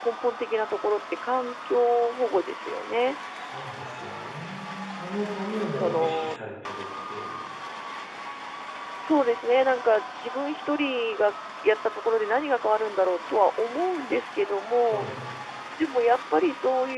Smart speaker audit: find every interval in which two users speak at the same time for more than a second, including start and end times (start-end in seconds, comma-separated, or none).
5.1-6.4